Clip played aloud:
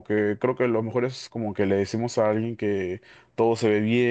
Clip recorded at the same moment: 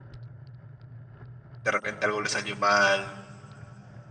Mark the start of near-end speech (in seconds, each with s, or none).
1.6 s